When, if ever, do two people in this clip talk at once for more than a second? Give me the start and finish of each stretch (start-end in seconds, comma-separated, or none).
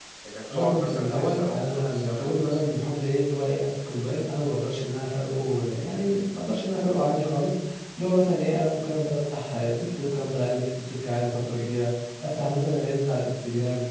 0.5-2.6